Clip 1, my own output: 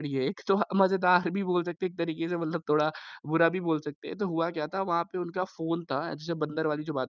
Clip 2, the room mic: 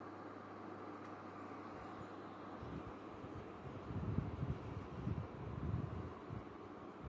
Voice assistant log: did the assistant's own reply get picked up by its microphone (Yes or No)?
No